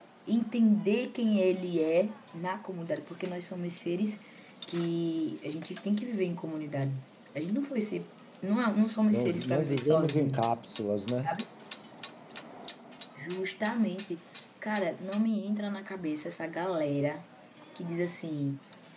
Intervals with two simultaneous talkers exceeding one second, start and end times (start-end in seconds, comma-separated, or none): 9.1-10.4